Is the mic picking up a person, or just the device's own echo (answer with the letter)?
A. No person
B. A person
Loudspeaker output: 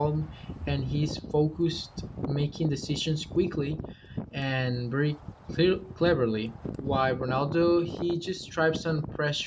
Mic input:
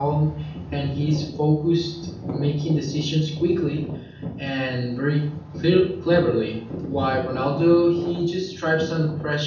A